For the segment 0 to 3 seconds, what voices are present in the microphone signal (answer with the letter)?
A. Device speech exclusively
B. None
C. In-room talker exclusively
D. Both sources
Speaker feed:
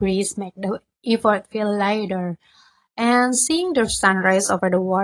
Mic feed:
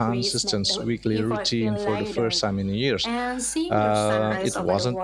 D